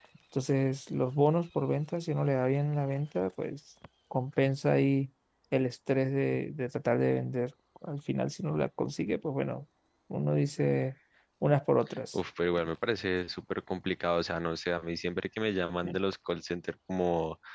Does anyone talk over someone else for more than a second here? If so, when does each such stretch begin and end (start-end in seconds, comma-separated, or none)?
none